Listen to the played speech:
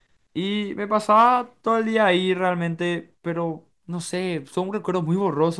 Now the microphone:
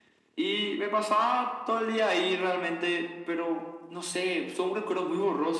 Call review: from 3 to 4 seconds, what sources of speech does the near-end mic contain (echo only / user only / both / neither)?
echo only